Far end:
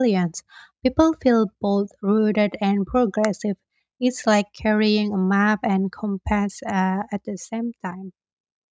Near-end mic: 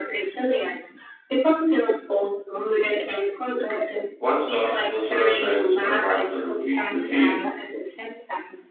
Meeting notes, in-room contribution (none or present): present